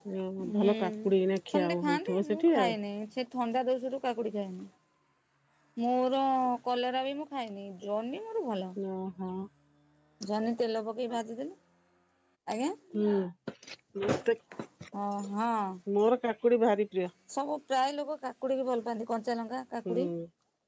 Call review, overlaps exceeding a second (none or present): present